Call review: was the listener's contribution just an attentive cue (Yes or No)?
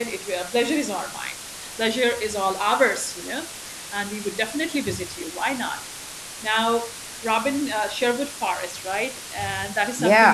No